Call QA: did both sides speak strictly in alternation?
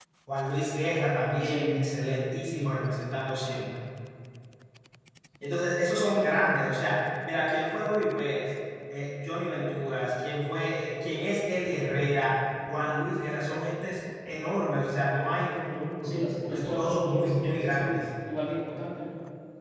No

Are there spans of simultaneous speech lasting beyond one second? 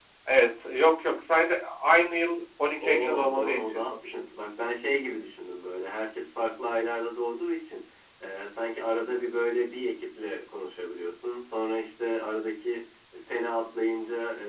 Yes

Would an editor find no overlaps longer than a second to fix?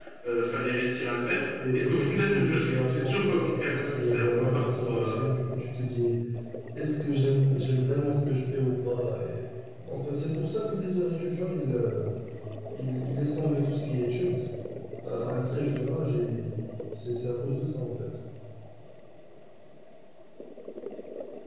No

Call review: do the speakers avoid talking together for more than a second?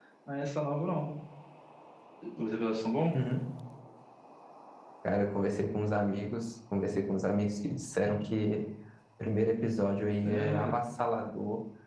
Yes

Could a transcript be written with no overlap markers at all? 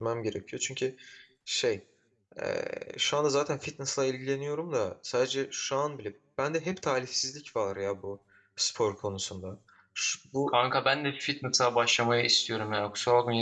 Yes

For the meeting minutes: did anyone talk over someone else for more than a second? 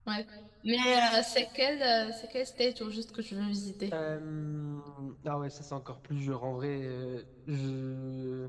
No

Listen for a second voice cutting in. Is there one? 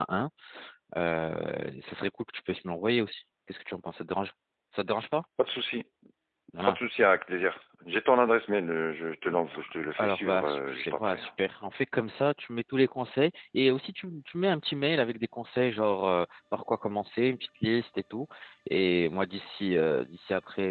Yes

